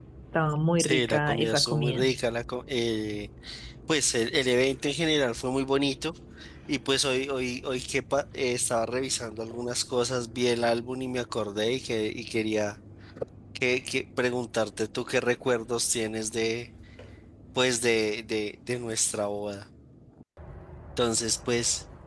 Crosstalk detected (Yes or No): Yes